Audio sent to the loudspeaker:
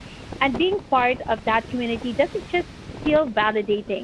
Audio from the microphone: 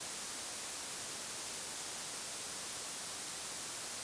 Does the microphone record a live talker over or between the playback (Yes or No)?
No